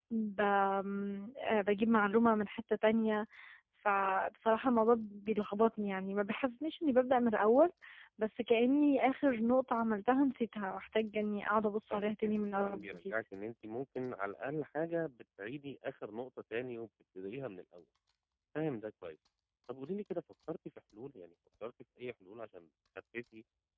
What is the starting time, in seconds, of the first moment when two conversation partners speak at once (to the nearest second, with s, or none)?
12 s